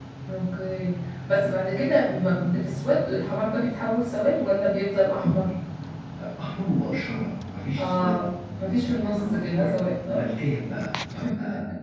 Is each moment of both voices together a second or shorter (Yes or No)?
No